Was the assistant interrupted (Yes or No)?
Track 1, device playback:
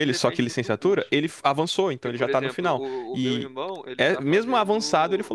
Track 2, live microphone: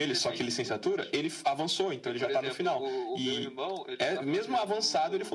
No